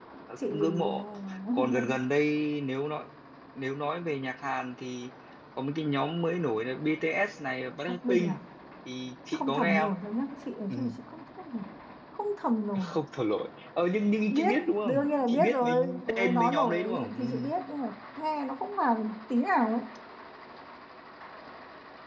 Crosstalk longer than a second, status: present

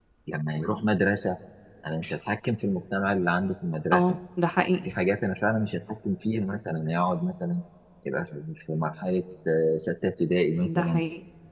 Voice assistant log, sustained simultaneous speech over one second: none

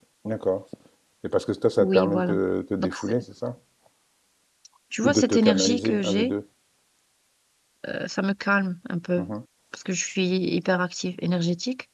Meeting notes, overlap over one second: present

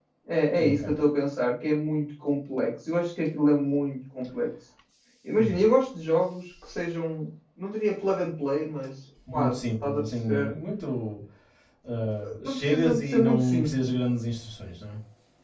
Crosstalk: present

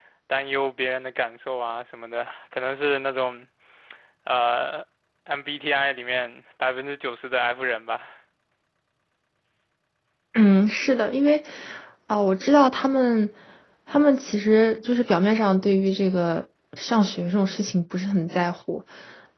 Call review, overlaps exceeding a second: none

